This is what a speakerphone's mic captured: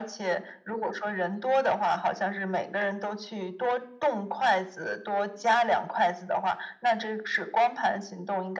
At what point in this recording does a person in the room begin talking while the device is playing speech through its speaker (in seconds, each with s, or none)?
none